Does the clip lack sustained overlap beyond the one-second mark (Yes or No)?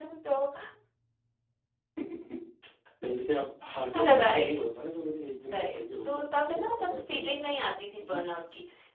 No